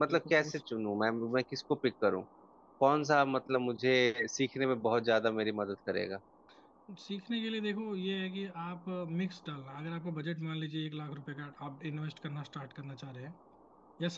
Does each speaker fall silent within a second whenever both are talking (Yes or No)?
Yes